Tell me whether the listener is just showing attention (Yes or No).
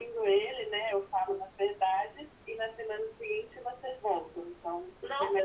No